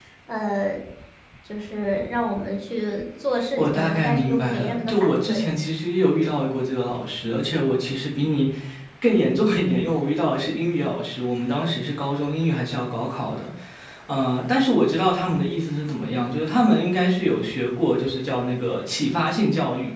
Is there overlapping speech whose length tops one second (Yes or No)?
Yes